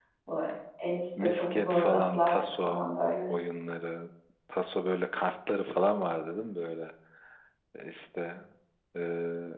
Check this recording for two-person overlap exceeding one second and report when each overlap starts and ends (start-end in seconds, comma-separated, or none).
1.2-2.9